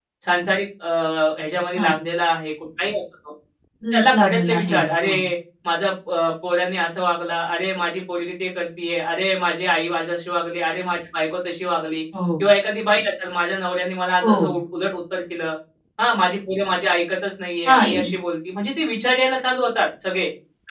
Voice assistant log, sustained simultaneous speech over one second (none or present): present